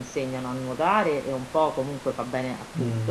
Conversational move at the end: taking over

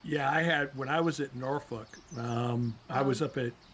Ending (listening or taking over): listening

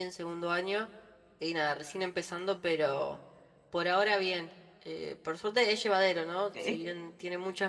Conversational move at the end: listening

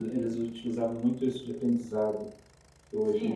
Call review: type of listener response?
taking over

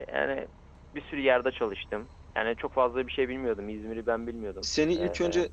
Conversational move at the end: taking over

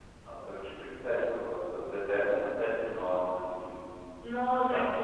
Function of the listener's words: taking over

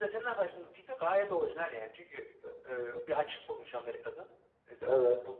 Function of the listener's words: listening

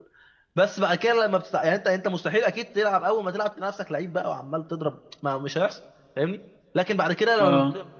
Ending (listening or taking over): listening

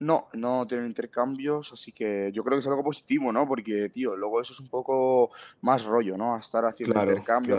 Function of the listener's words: listening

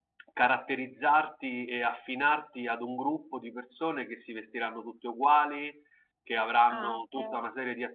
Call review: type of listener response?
listening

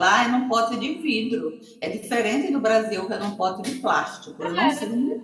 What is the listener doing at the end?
taking over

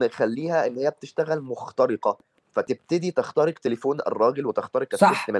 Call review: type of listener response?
taking over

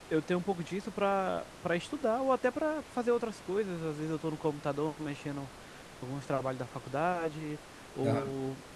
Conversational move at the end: listening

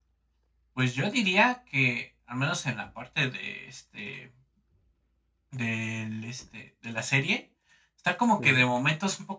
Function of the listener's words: listening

